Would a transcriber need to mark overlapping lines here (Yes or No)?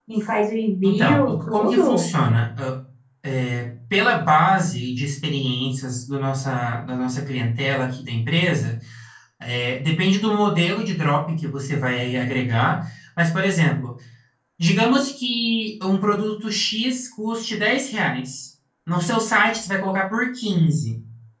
Yes